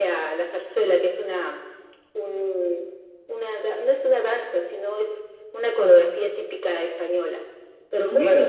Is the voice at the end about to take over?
Yes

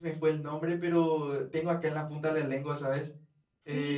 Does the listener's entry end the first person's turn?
Yes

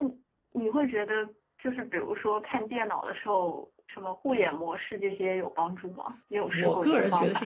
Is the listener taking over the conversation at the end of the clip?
Yes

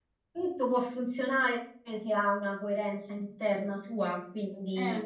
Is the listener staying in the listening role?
Yes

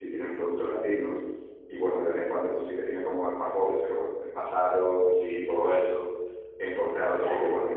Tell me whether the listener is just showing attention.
Yes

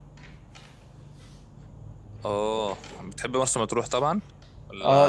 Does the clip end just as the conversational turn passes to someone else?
Yes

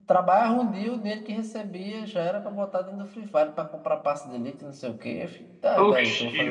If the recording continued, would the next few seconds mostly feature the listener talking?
Yes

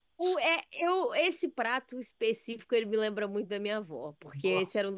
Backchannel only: Yes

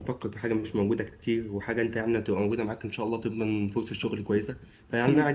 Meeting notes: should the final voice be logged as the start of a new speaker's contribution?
No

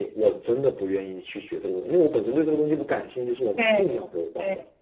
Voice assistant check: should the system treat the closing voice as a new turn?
Yes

